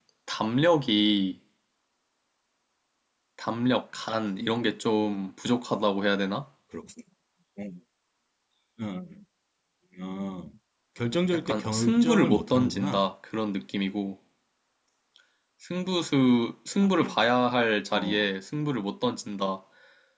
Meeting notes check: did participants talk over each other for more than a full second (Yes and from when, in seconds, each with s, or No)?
Yes, from 11.3 s